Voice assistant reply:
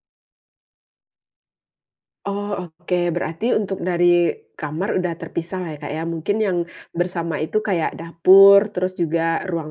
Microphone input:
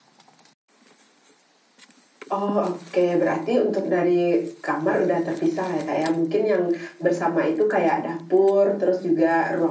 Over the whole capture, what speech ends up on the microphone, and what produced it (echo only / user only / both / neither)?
echo only